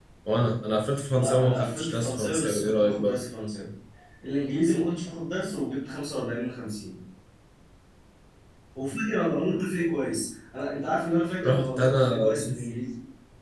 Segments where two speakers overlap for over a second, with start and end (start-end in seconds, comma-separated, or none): 1.1-3.1, 11.4-12.6